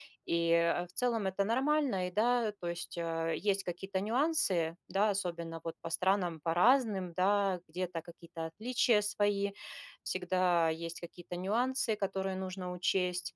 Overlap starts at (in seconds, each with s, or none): none